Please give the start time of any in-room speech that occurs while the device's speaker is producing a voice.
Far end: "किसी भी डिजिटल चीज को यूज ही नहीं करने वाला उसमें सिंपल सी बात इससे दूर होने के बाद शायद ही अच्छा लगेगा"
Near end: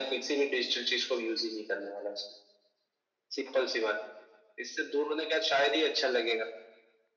none

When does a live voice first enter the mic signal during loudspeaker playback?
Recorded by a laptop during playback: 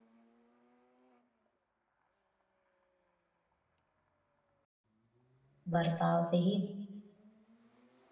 5.7 s

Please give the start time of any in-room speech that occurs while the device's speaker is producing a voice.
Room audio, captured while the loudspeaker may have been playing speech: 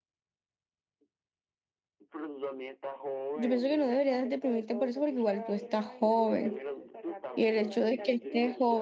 3.3 s

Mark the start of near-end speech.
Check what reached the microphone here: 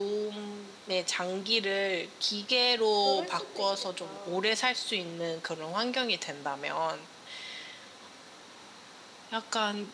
3.0 s

